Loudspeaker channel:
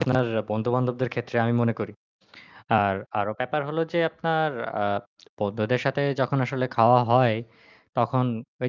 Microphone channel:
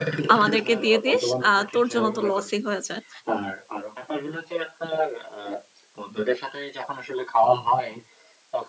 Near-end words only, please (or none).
আমাদেরকে দিয়ে দিস আর তোর জন্য তো loss ই হয়ে যায়।"